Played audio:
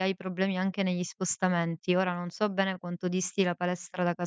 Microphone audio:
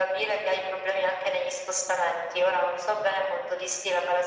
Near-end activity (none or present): none